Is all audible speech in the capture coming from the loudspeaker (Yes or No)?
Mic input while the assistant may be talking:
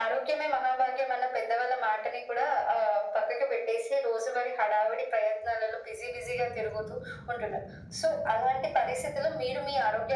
Yes